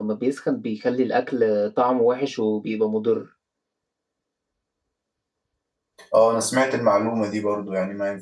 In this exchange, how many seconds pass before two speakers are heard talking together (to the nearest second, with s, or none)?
none